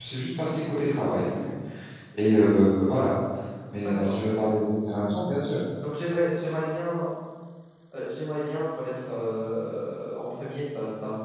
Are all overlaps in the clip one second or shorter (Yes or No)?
Yes